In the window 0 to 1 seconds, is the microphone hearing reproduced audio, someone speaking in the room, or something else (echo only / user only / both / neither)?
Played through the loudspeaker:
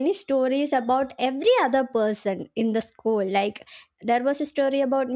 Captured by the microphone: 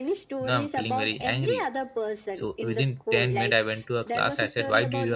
both